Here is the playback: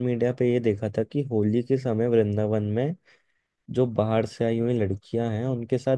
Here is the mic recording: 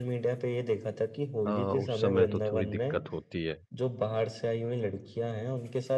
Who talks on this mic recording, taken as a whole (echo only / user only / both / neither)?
both